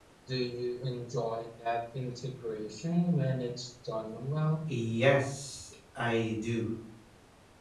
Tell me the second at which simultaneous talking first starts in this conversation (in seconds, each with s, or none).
none